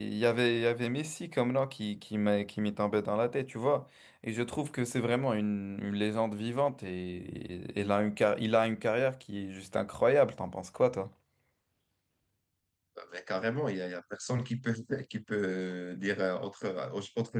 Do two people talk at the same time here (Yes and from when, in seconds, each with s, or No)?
No